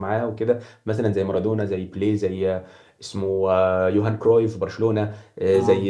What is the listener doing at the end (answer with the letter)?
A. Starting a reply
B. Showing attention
B